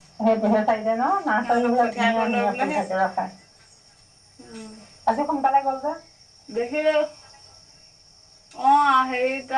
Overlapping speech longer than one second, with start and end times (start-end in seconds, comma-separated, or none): 1.4-2.8